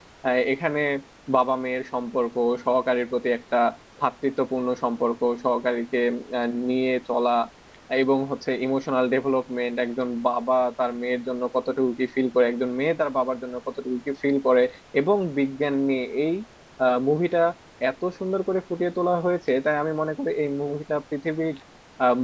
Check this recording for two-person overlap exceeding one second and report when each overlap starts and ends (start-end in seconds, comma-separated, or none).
none